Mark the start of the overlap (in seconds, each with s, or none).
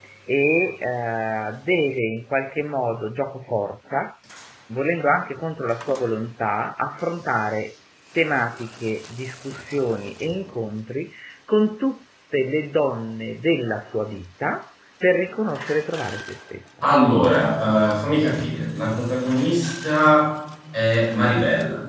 none